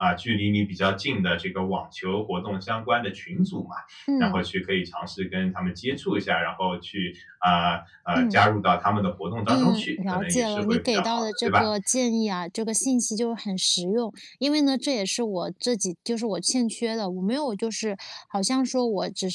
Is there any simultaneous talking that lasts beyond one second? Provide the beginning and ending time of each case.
9.5-11.6

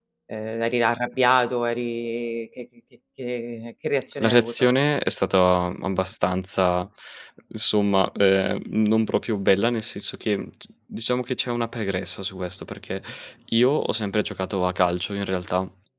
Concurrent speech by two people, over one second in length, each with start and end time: none

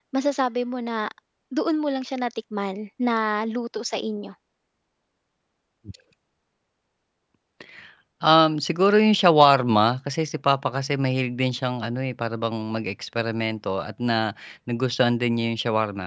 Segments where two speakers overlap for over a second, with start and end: none

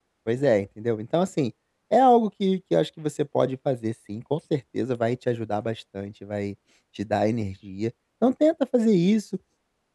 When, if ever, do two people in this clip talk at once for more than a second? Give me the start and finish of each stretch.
none

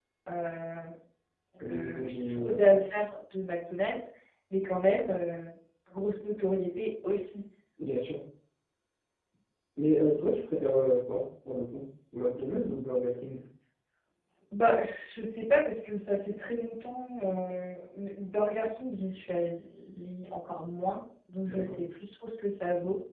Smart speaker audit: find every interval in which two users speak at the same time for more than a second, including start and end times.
1.6-2.8

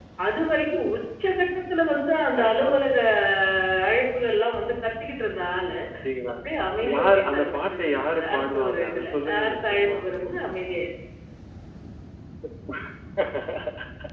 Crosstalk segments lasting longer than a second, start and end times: 6.9-9.9

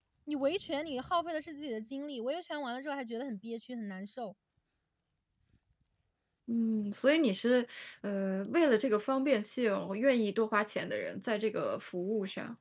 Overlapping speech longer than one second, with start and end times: none

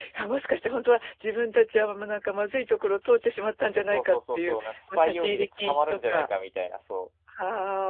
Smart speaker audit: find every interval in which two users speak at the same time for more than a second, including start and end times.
3.9-6.3

